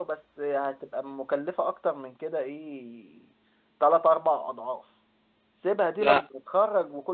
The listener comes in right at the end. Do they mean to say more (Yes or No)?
No